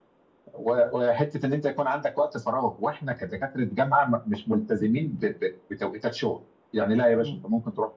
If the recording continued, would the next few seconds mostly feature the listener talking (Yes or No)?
No